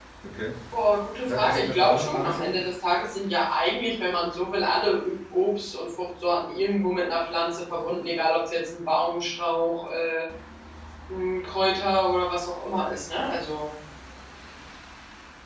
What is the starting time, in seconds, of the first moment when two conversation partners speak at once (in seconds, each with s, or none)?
1.2 s